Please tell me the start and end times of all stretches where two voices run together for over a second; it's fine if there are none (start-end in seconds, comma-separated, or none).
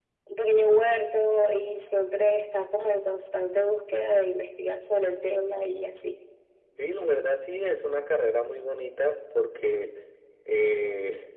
none